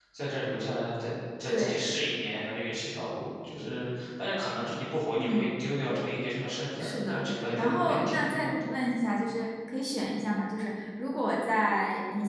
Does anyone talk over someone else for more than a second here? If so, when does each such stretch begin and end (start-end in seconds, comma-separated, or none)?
6.8-8.6